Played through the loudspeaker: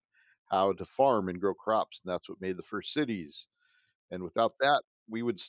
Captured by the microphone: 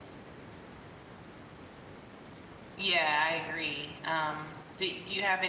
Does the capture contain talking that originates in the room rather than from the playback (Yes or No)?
Yes